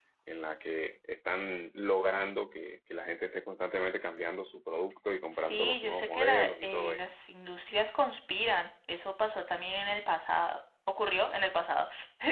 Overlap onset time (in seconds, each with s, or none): 5.3 s